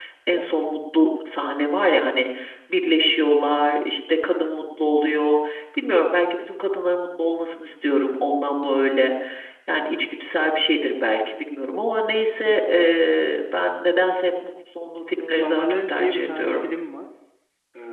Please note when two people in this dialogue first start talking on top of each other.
15.3 s

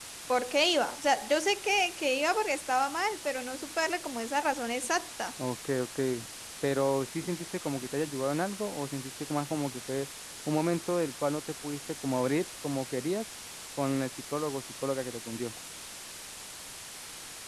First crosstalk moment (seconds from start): none

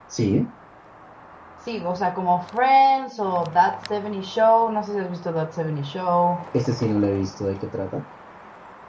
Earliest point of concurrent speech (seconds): none

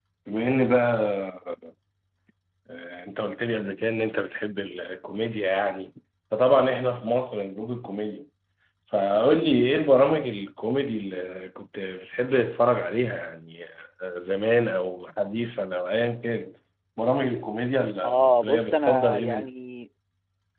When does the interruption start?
18.0 s

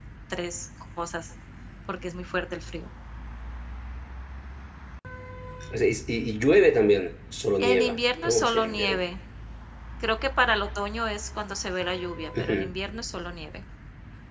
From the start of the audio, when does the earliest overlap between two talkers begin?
7.6 s

